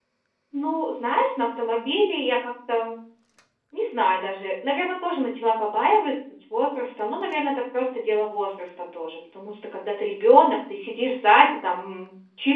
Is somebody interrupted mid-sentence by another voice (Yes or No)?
No